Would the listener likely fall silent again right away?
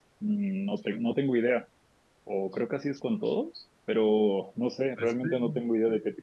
Yes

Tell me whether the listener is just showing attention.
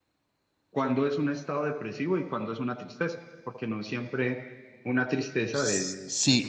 No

